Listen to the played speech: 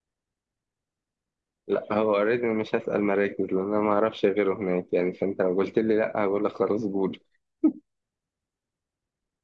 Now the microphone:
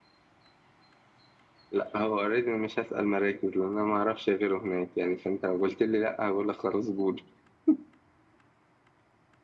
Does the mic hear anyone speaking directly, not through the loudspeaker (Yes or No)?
No